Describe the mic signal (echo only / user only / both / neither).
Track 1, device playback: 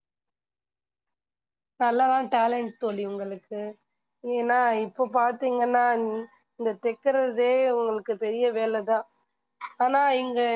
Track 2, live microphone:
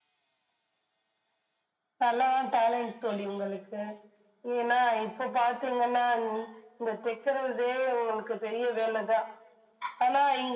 echo only